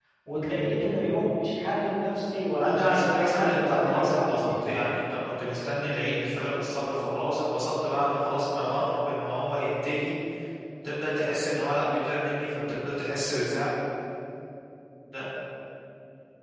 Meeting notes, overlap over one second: present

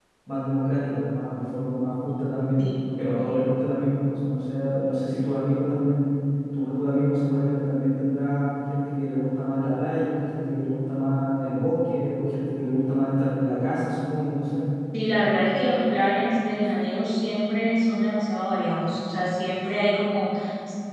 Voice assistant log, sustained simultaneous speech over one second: none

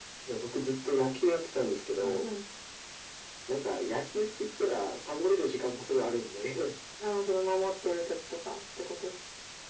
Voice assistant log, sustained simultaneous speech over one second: none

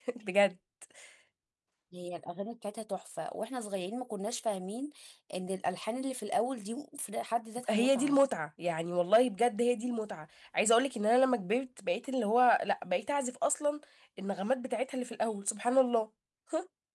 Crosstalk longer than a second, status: none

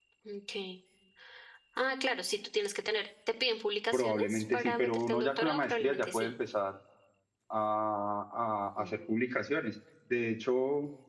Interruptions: present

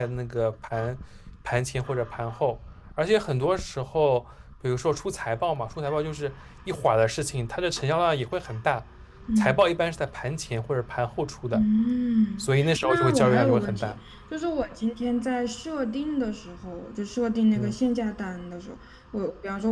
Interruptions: present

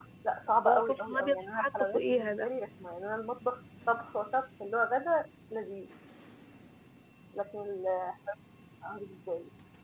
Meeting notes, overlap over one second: present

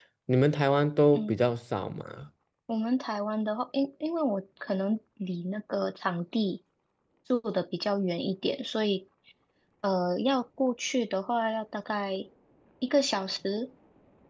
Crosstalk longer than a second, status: none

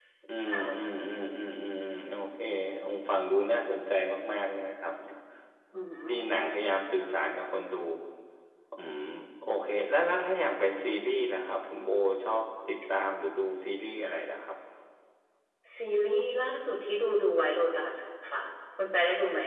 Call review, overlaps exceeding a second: none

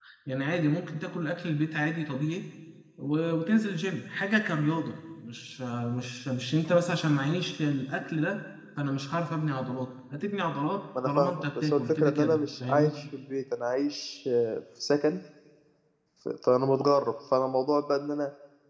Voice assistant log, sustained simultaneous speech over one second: present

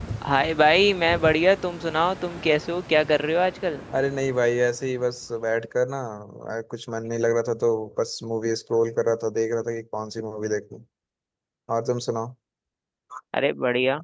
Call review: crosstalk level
none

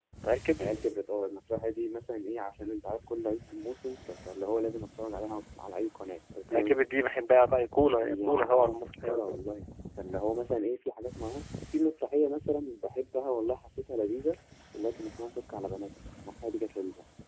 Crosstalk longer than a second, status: present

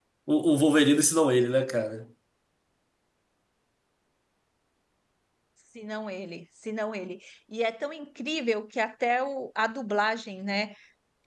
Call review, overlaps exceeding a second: none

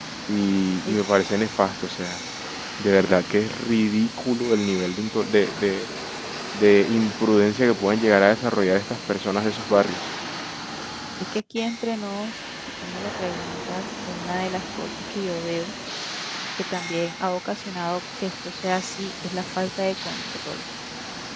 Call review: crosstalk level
none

